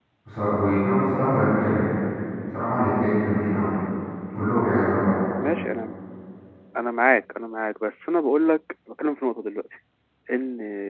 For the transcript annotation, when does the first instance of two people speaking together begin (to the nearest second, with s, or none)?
none